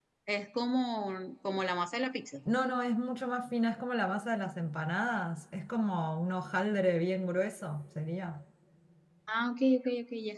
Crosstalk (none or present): none